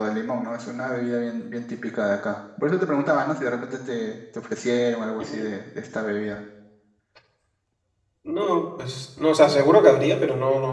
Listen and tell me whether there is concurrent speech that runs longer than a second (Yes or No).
No